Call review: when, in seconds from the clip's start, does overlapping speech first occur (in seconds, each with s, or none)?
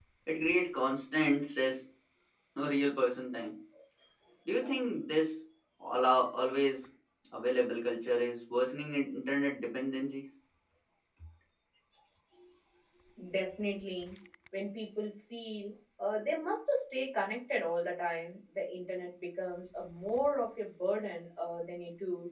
none